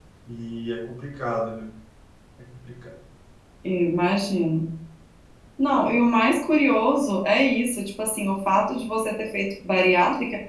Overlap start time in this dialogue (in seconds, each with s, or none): none